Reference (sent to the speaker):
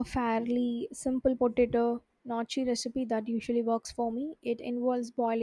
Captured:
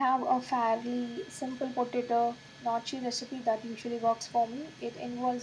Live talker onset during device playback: none

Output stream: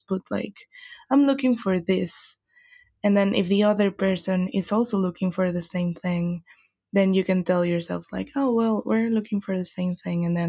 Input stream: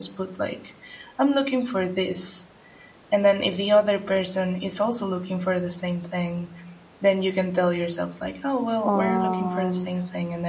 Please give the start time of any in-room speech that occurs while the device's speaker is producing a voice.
9 s

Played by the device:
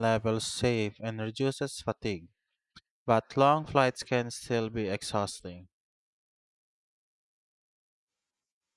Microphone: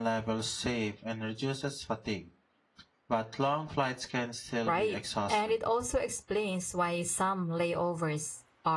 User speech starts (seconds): 5 s

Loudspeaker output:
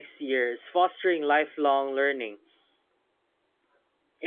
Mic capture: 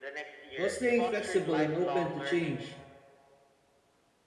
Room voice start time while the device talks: 1 s

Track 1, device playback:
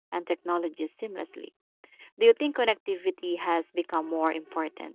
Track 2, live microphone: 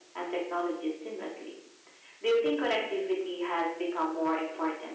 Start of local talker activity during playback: none

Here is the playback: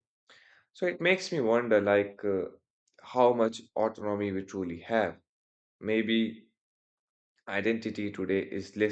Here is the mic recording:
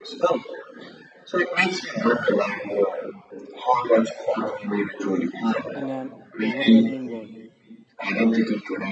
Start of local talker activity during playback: 6 s

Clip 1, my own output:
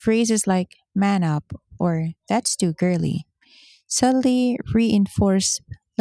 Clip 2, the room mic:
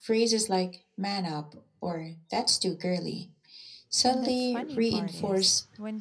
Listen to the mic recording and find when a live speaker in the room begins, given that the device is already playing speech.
4 s

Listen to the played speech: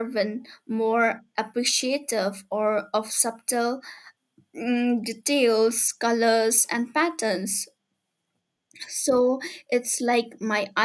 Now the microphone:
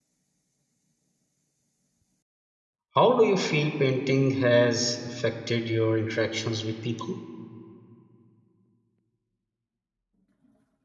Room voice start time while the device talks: 3 s

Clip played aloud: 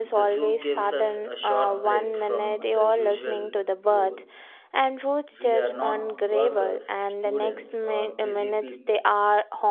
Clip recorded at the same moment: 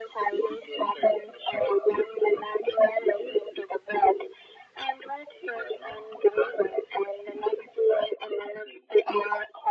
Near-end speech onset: none

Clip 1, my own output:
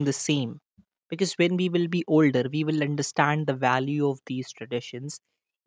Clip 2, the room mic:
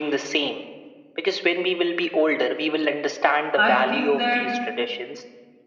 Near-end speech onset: 4 s

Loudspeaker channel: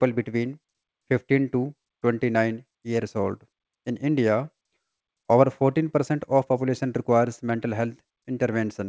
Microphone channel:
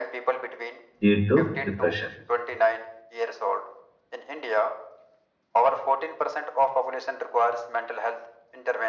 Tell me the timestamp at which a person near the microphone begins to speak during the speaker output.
1 s

